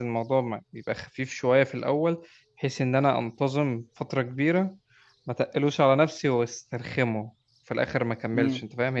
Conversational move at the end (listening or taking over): taking over